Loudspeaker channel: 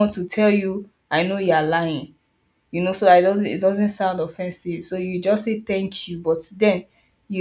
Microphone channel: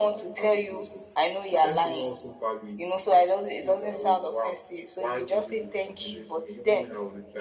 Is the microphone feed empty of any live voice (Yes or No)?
No